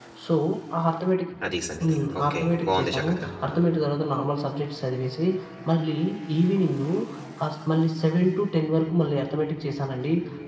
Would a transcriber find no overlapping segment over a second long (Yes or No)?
No